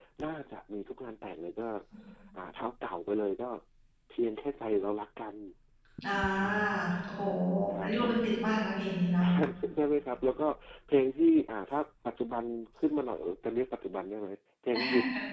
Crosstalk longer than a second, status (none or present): none